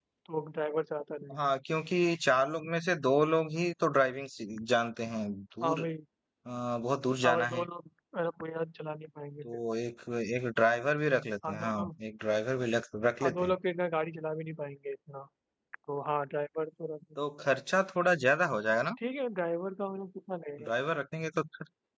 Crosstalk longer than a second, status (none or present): none